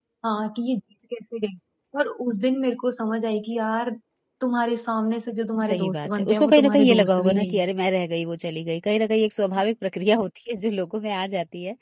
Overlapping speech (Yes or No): Yes